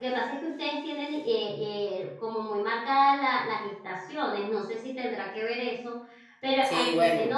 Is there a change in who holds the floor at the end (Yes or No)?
Yes